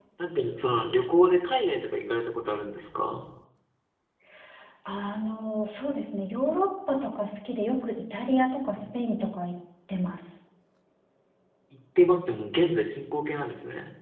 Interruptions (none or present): none